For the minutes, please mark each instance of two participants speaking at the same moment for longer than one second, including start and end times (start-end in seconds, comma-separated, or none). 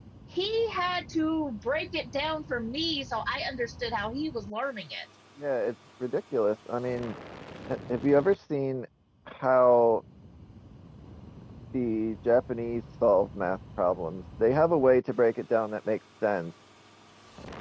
none